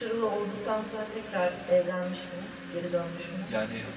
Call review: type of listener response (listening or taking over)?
taking over